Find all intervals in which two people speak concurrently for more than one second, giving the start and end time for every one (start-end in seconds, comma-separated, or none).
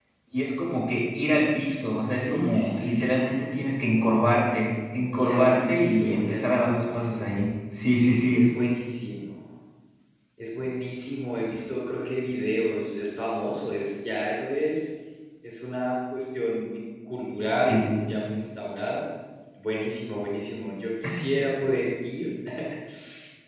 2.1-3.4, 5.2-7.2